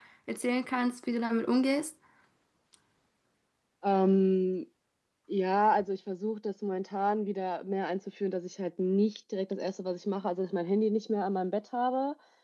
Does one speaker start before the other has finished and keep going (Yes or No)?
No